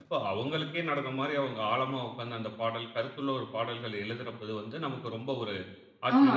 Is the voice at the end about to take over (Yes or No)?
Yes